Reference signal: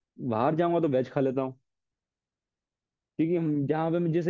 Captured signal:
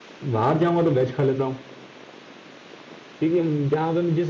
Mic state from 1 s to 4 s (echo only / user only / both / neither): echo only